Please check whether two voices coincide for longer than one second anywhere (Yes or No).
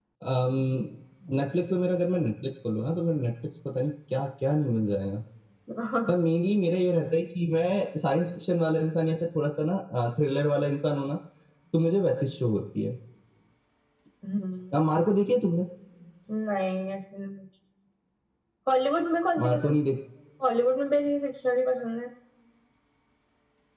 No